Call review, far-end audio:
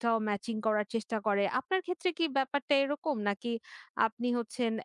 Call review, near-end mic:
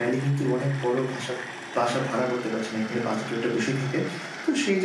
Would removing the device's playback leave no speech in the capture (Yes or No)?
No